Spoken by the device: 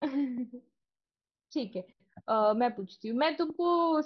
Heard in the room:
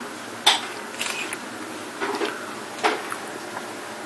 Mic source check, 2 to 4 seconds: neither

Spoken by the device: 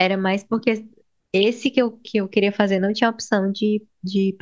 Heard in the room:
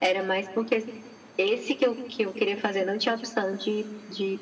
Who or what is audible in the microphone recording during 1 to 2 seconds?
echo only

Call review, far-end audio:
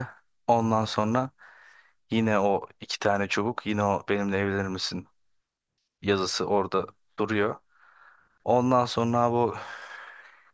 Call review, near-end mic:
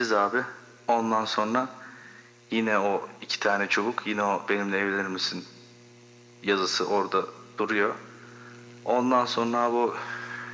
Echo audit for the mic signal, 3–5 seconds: echo only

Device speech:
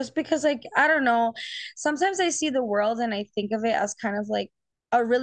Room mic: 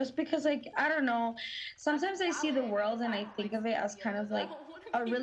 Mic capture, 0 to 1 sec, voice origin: echo only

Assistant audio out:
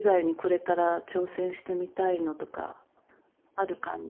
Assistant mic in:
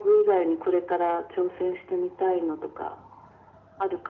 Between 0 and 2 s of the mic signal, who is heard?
echo only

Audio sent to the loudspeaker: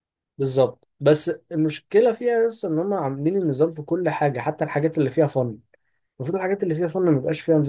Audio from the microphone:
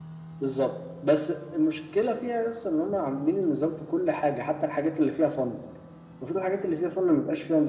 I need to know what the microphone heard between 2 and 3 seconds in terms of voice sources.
echo only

